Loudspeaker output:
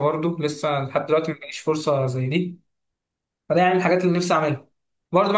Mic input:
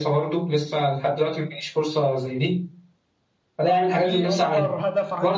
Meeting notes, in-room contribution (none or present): present